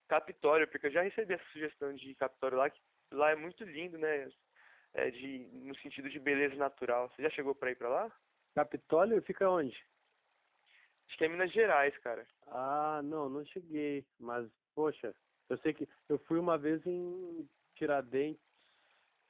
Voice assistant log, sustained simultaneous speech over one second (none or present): none